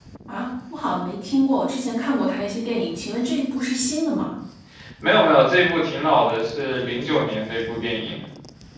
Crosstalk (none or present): none